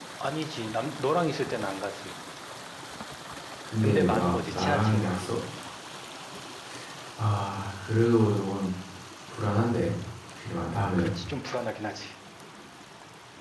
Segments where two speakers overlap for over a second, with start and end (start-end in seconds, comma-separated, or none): 3.8-5.3